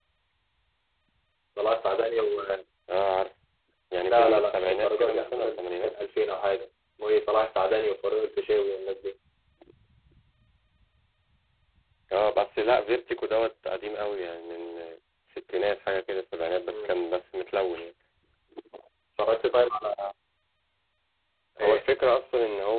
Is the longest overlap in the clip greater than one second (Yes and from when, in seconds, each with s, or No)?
Yes, from 4.0 s